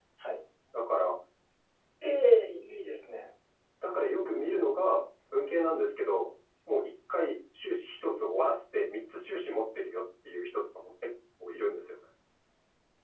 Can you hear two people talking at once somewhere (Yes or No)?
No